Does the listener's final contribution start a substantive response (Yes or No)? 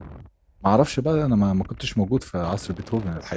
Yes